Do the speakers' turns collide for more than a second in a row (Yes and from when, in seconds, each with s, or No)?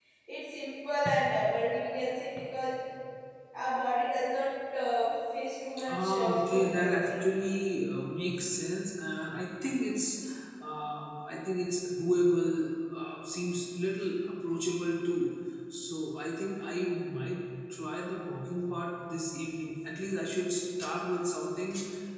Yes, from 5.9 s